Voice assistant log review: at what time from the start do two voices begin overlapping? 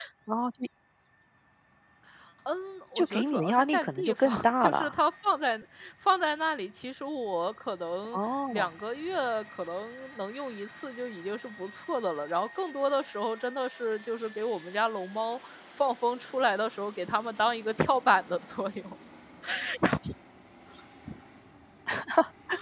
3.0 s

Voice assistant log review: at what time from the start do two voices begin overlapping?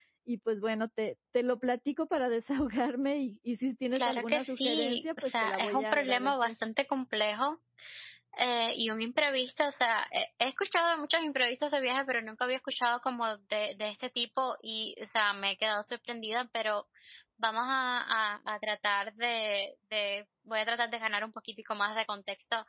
3.9 s

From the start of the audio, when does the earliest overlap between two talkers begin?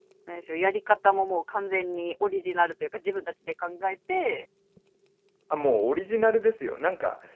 none

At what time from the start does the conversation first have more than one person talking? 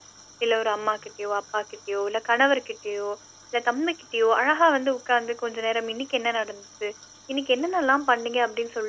none

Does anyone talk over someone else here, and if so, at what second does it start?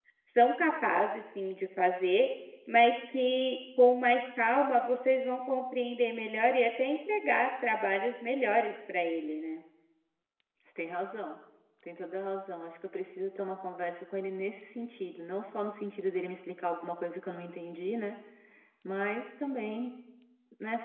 none

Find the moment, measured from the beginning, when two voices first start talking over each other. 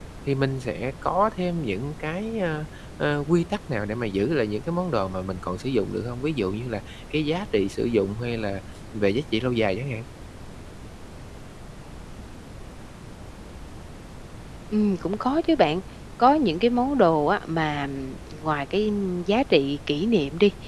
none

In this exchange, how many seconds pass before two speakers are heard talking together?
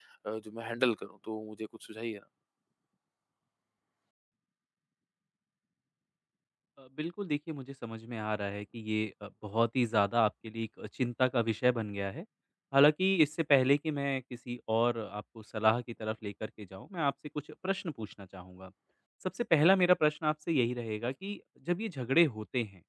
none

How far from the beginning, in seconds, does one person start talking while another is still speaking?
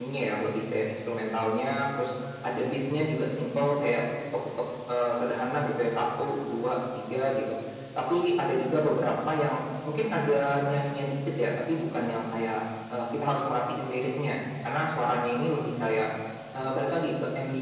none

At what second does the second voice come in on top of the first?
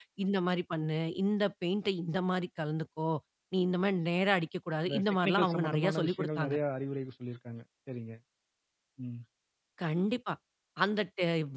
4.9 s

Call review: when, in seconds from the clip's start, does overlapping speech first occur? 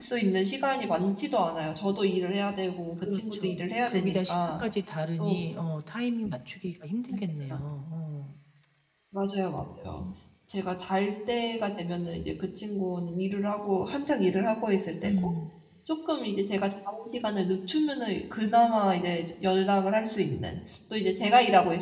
3.0 s

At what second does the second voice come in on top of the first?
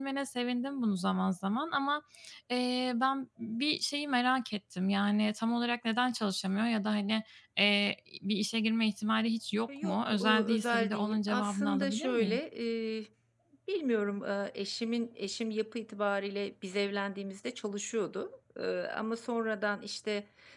9.7 s

